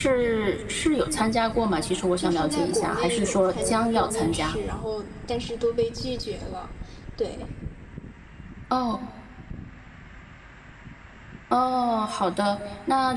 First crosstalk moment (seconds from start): 2.2 s

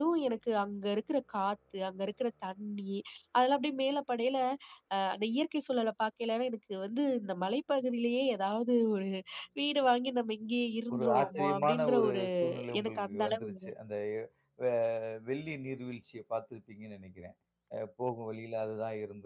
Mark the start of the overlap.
10.9 s

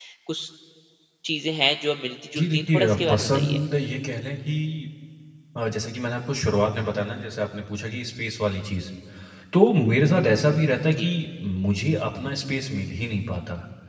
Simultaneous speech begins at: 2.4 s

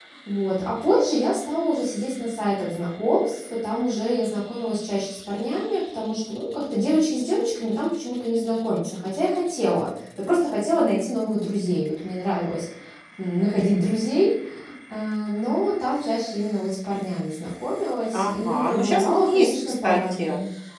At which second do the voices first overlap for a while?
18.1 s

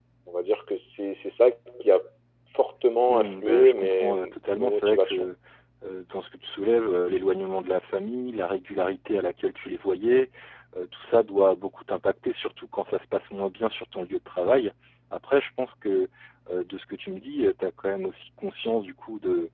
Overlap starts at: 3.1 s

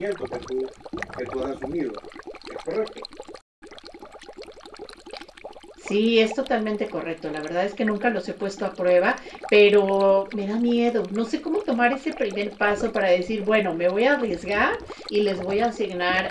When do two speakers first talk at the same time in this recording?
none

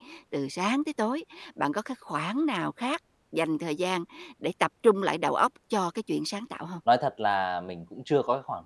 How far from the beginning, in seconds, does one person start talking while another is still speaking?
none

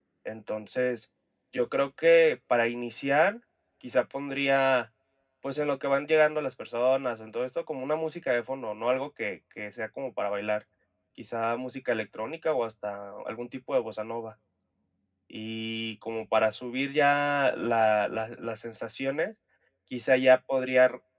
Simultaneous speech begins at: none

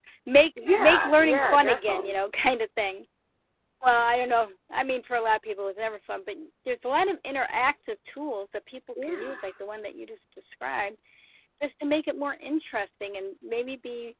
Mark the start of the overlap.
0.7 s

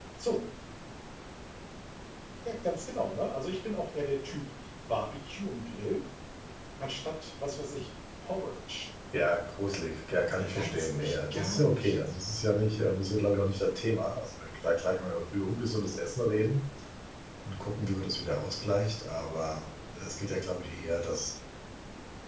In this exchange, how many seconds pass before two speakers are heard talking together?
10.4 s

